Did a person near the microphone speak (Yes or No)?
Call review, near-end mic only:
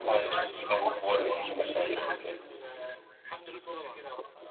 Yes